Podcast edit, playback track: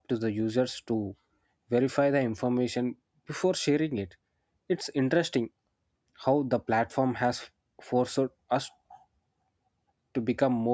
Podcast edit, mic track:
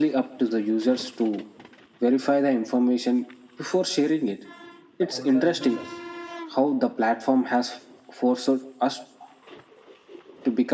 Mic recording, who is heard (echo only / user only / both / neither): both